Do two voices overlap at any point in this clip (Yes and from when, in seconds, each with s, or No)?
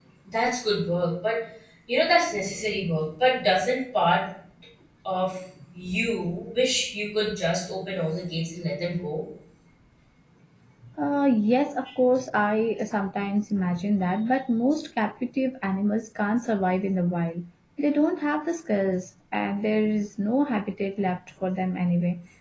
No